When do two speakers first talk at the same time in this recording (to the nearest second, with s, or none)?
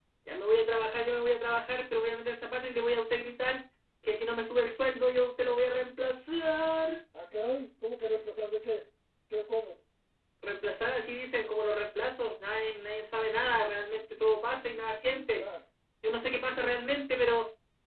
none